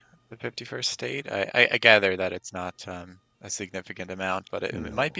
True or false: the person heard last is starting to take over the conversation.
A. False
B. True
A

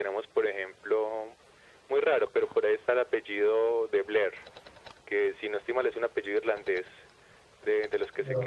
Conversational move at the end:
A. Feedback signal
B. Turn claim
A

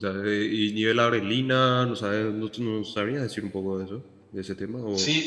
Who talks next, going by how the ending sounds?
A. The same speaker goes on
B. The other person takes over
B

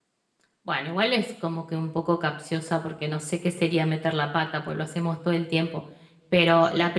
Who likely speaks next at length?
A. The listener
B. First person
B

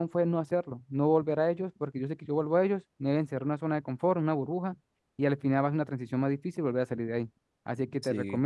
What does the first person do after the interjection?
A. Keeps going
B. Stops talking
A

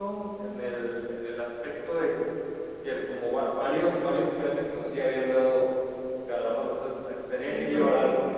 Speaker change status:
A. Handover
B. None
A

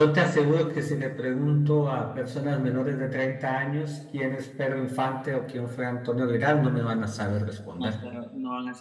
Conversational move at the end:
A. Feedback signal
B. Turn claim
B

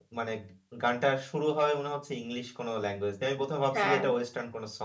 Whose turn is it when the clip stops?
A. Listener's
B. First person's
B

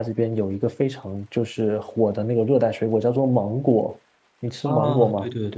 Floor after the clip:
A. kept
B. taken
B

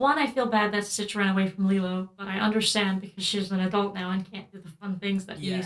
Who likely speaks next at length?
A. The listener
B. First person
A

